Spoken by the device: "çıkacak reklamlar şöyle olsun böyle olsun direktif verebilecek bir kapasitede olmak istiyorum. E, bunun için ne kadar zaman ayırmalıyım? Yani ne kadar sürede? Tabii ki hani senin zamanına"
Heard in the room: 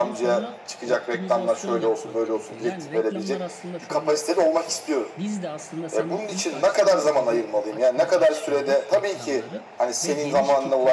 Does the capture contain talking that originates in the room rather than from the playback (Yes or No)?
Yes